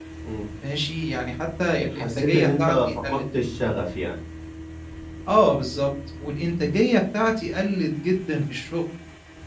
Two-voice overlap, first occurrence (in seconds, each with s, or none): 1.9 s